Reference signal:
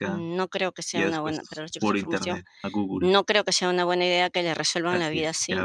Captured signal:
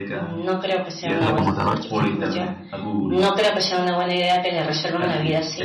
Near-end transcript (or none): a la computadora.